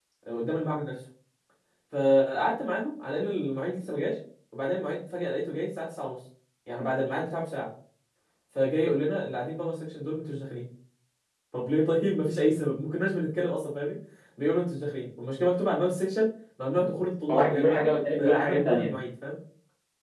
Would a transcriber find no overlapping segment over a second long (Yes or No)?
No